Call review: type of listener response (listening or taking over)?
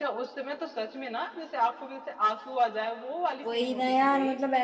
taking over